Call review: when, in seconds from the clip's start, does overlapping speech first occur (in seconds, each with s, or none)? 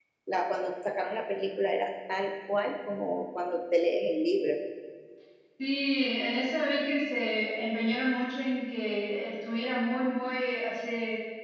none